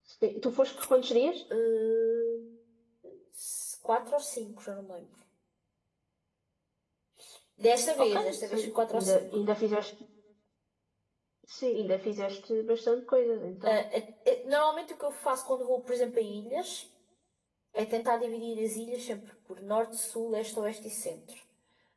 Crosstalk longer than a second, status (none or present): present